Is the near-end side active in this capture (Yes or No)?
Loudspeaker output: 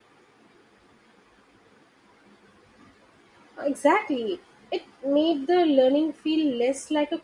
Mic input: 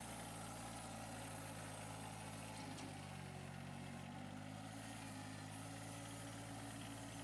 No